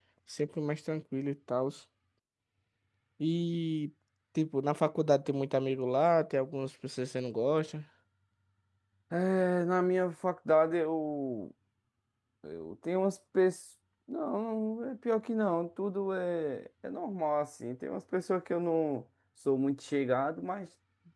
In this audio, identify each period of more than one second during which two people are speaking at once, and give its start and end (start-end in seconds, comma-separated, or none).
none